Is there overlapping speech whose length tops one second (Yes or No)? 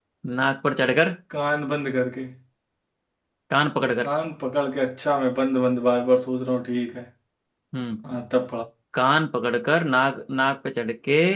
No